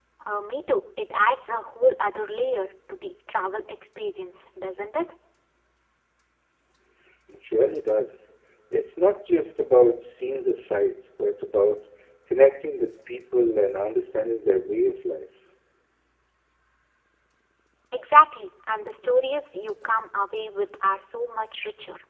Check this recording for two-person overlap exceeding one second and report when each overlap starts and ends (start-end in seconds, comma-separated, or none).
none